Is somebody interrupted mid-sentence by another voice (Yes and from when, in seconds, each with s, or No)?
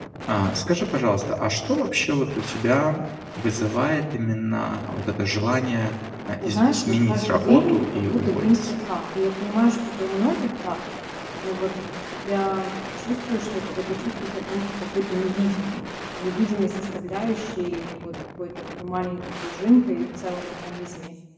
Yes, from 6.4 s